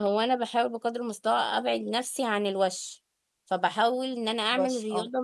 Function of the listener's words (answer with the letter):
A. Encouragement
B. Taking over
A